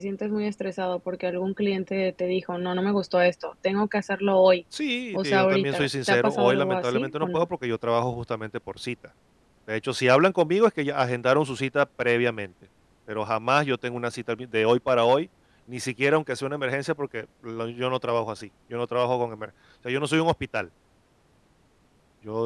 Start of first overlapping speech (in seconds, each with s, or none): 5.1 s